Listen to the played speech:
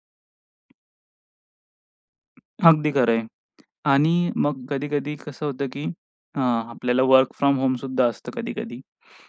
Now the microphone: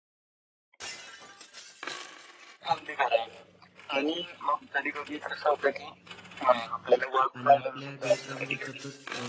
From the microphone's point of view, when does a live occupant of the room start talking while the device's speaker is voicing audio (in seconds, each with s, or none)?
7.4 s